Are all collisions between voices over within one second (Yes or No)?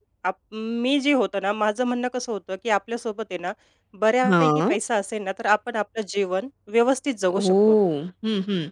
Yes